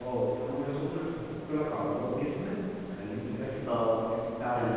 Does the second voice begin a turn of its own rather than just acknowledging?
Yes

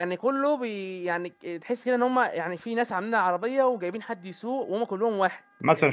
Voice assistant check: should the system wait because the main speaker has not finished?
No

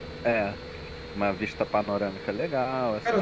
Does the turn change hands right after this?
Yes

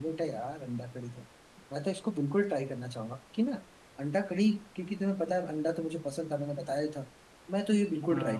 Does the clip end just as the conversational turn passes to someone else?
No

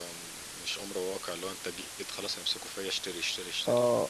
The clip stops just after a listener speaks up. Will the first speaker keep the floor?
No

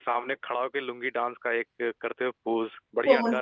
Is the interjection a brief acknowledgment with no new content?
No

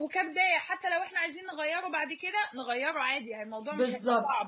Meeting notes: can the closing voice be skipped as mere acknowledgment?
No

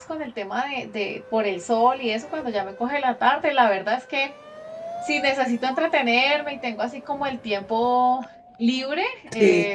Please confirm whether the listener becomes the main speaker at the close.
No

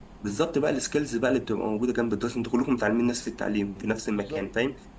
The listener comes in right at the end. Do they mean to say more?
No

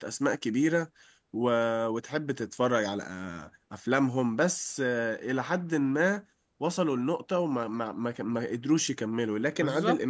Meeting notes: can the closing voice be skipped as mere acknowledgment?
Yes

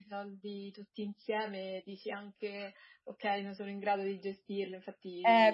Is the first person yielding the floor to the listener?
Yes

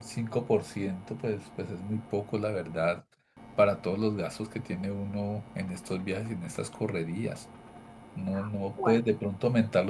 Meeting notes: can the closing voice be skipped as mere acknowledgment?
Yes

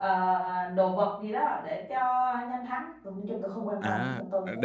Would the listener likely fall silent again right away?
No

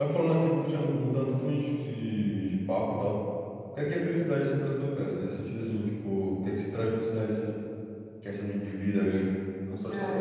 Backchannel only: No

